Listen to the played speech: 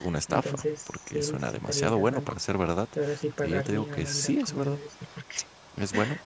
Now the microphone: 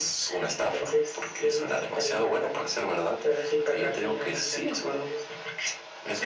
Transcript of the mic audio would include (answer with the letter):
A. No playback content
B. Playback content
B